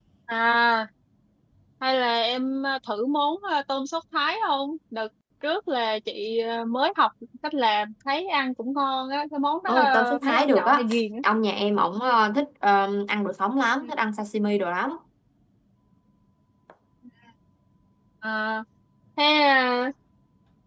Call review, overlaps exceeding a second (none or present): present